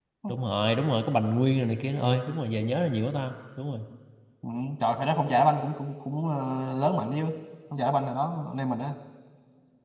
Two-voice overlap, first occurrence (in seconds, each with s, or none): none